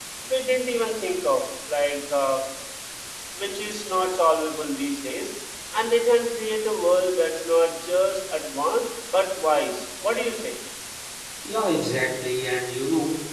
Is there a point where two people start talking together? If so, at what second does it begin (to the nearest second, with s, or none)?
none